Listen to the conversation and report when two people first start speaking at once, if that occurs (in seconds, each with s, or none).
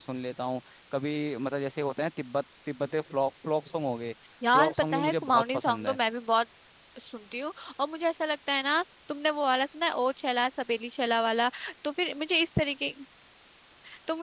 4.5 s